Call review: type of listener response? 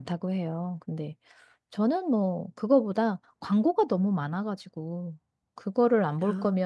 listening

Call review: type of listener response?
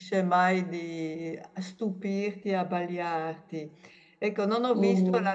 listening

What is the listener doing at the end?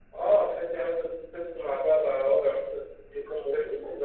taking over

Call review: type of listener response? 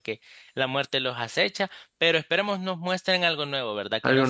listening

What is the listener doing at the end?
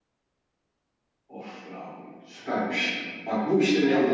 listening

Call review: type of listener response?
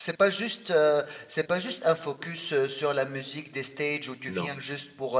listening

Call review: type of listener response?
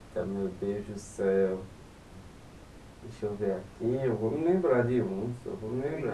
taking over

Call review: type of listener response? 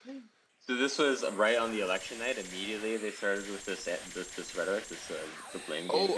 taking over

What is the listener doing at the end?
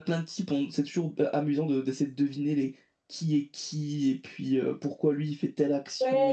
taking over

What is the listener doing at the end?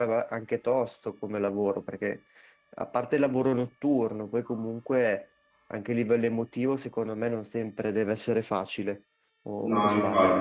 taking over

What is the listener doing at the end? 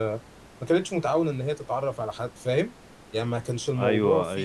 taking over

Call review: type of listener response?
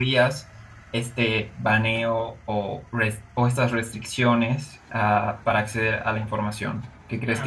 taking over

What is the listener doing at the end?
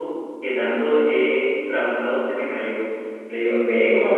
listening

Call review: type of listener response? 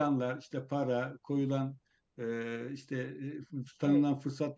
listening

